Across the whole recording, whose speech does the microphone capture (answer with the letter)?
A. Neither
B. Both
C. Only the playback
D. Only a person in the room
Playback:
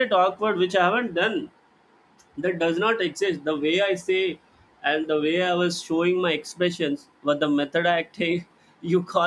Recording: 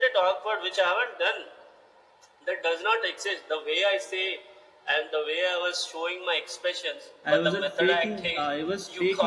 B